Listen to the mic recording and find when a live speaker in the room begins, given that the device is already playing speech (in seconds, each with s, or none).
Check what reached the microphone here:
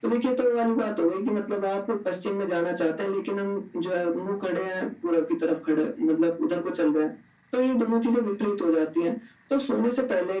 none